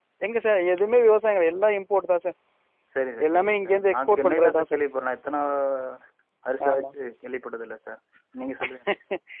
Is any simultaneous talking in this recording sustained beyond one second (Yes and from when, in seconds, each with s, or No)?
Yes, from 3.3 s